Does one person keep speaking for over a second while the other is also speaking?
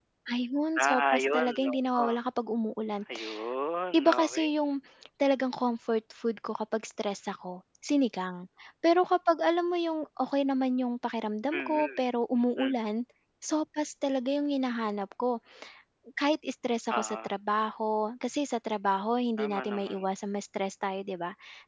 Yes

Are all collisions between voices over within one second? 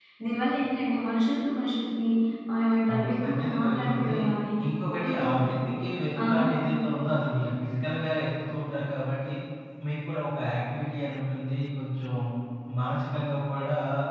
No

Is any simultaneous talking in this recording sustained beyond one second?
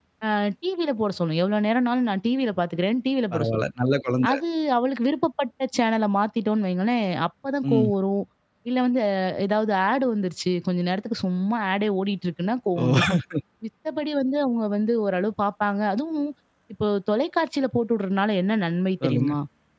No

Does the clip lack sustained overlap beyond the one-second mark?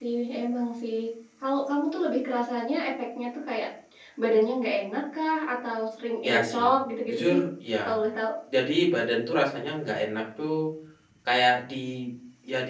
Yes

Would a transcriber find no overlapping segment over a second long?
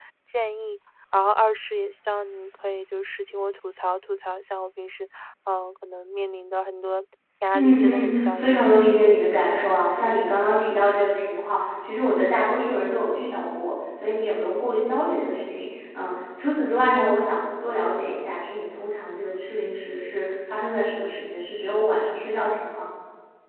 No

